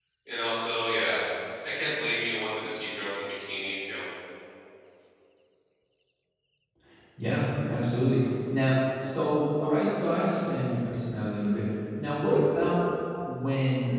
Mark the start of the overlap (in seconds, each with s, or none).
none